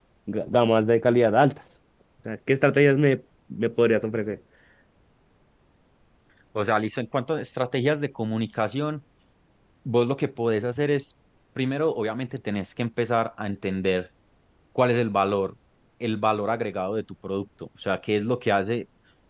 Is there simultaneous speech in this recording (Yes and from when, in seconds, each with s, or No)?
No